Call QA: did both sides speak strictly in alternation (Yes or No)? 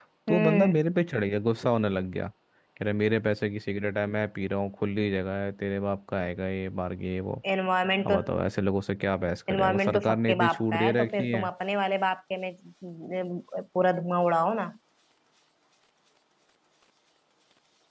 No